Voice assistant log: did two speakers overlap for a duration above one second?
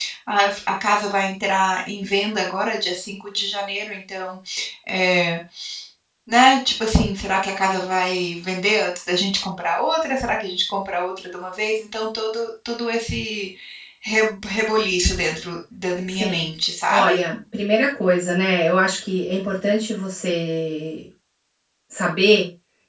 No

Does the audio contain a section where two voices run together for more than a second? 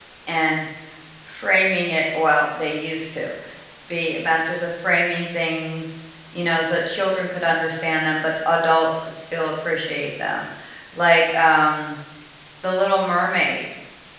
No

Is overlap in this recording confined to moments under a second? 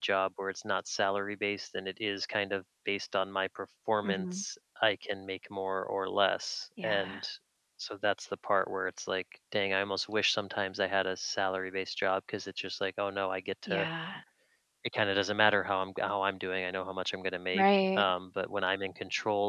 Yes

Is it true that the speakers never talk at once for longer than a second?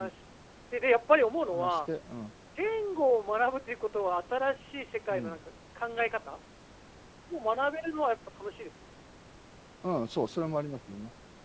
Yes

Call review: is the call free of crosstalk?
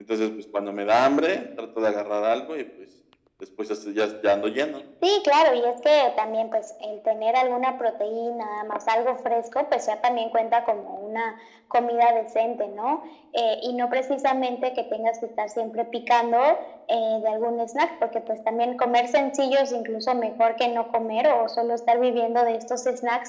Yes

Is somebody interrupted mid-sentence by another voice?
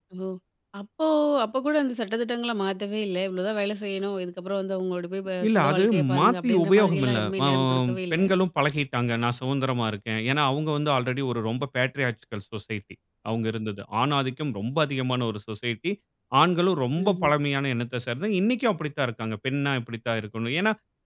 Yes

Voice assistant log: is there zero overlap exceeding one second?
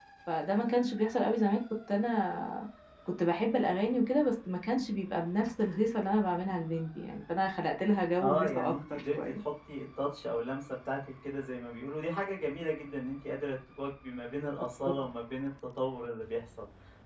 No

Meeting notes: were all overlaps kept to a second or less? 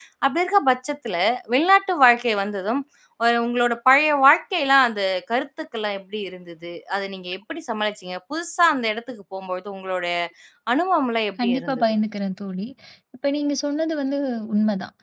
Yes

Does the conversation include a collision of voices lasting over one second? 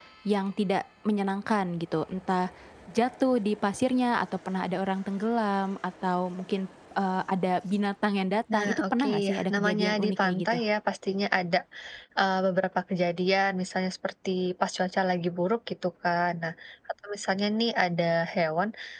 Yes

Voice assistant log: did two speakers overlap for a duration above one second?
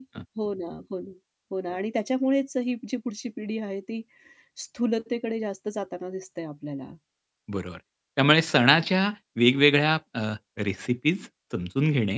No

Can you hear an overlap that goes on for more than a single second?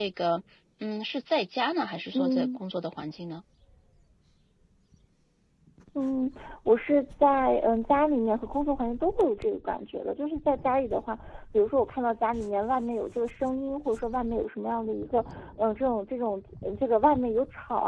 No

